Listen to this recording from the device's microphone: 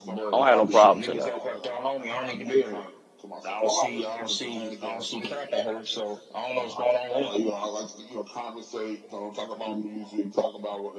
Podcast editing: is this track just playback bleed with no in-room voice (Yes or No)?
No